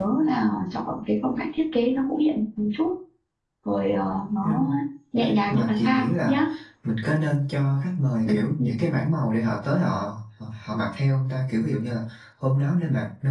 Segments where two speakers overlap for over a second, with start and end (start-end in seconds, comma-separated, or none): 5.2-6.4